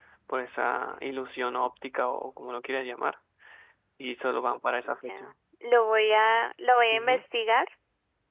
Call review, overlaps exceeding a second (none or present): none